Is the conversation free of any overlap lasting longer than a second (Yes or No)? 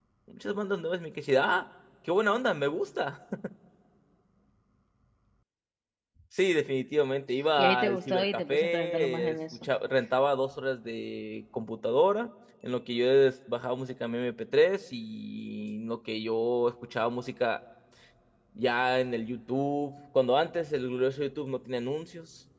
No